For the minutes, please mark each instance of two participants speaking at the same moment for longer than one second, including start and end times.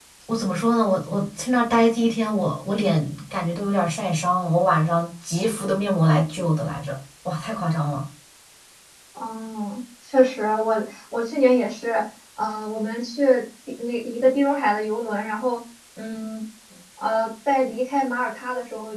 none

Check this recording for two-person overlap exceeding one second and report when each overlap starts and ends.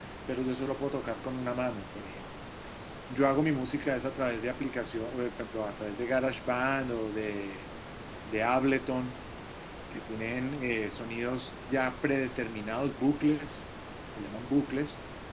none

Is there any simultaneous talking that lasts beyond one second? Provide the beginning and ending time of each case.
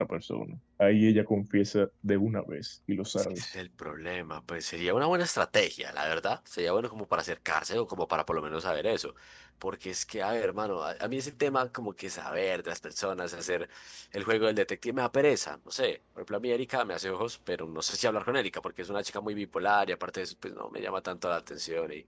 none

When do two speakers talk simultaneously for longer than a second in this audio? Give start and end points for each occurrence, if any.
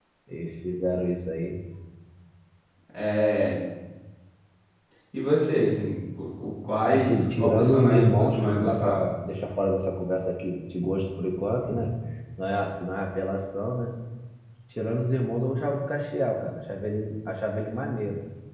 6.9-9.0

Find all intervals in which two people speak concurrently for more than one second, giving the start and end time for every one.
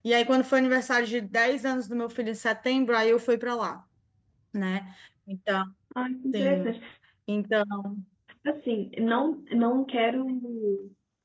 none

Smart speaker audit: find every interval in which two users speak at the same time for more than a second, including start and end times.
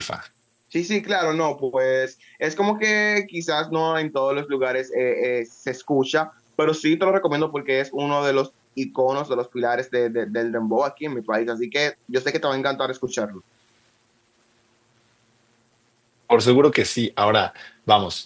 none

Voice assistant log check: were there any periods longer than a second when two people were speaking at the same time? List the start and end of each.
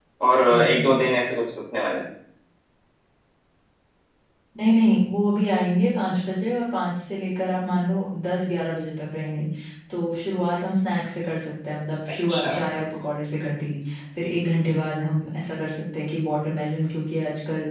none

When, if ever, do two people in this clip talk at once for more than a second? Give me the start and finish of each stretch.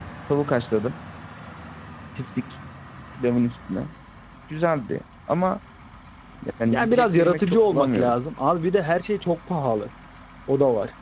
6.7-8.1

